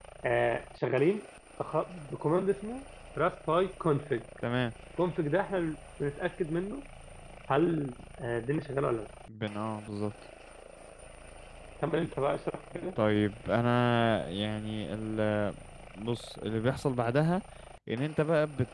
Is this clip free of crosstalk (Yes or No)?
Yes